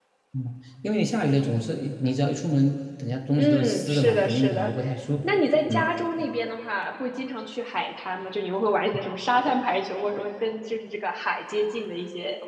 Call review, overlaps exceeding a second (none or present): present